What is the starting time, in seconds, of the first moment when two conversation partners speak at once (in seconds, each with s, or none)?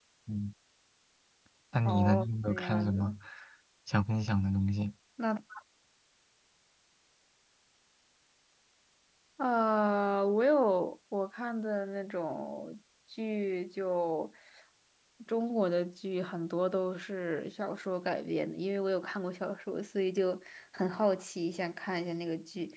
1.8 s